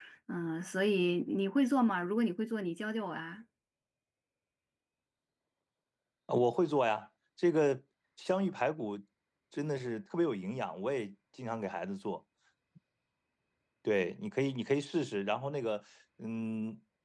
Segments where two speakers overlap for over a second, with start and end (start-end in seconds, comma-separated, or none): none